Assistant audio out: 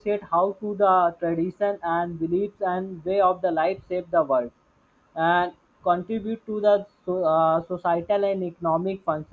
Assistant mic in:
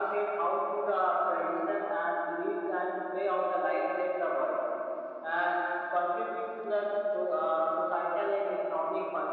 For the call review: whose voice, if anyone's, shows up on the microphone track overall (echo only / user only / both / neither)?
echo only